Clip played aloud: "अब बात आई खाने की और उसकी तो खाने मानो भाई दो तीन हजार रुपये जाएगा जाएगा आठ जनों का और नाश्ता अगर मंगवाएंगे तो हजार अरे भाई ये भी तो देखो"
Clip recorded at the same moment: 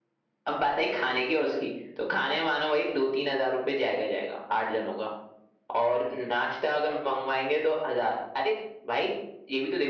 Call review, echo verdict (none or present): present